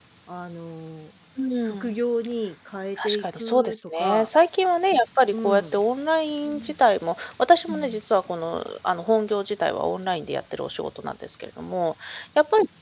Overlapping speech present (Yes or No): Yes